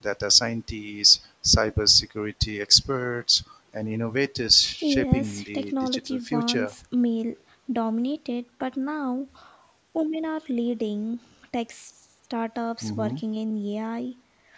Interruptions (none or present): present